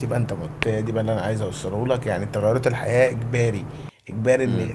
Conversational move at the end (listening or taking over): listening